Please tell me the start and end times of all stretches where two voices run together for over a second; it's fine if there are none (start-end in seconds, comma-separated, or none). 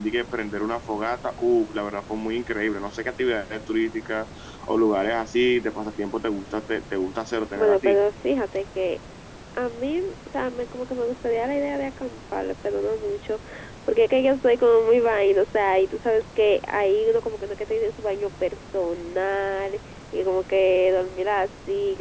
none